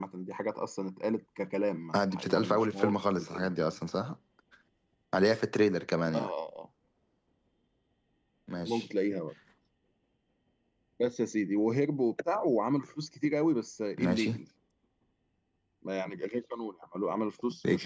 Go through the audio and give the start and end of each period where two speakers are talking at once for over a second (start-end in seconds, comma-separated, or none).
1.9-3.5